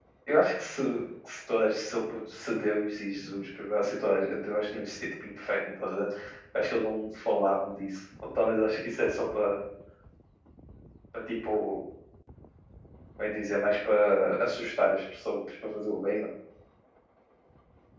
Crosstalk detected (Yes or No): No